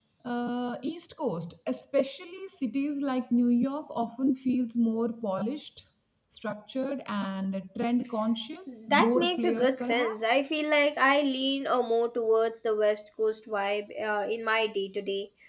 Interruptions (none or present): present